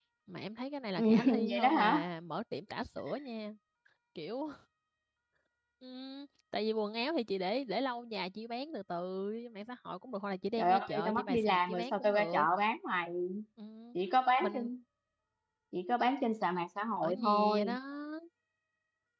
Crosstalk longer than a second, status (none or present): present